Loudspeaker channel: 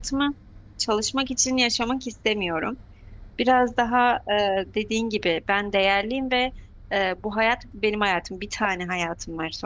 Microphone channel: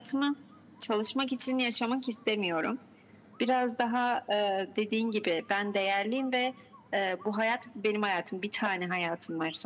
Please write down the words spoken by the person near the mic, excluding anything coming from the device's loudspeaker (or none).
none